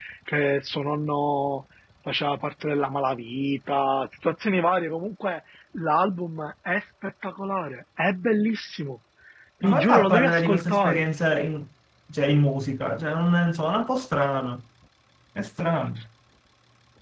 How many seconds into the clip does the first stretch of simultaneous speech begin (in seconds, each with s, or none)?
9.6 s